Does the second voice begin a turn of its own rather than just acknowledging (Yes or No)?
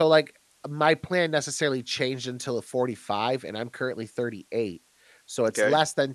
No